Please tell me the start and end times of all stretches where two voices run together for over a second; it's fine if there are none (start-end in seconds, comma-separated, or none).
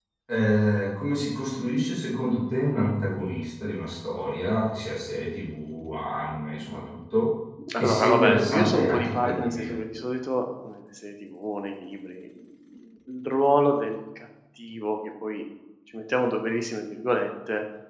7.8-9.8